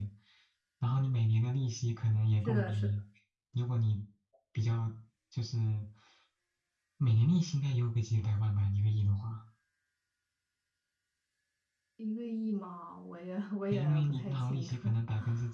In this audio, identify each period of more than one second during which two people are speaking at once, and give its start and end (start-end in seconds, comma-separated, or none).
13.7-14.9